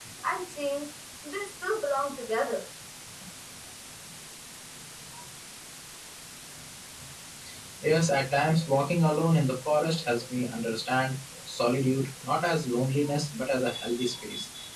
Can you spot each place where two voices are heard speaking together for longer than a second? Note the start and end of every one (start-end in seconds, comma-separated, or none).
none